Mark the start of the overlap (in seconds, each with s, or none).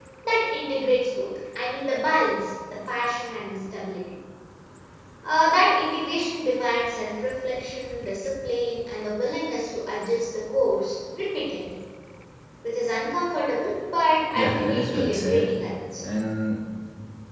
14.3 s